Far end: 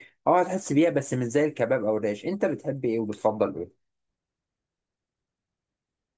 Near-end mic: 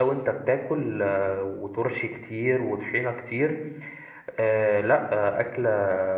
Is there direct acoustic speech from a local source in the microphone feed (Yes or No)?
Yes